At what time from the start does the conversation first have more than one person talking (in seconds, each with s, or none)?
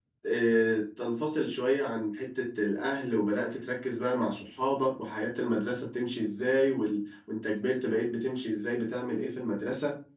none